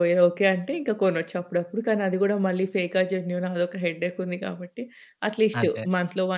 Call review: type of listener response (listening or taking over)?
listening